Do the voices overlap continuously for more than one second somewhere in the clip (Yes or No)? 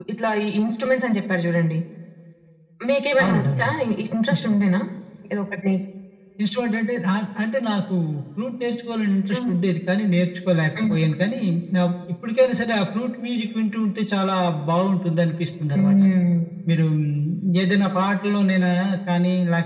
No